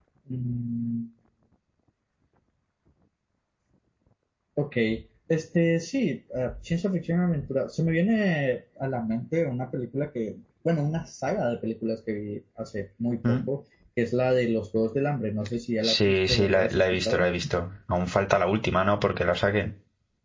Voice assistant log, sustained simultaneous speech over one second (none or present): present